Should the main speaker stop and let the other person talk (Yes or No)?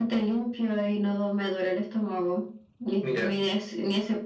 No